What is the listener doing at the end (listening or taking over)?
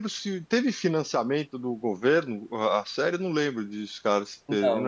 taking over